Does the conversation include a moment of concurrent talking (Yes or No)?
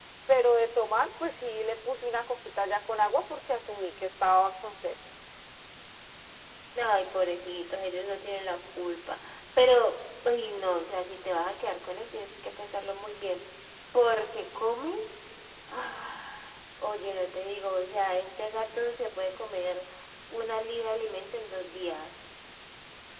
No